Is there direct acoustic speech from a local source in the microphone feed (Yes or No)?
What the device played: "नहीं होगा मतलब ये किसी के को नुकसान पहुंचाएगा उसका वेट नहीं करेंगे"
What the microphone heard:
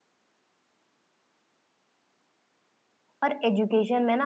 Yes